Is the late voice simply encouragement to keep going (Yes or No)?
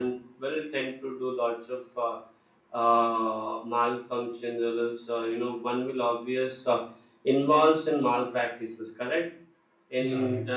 Yes